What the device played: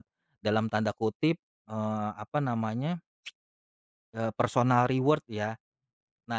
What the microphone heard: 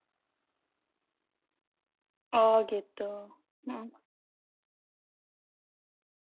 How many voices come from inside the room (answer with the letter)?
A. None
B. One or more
B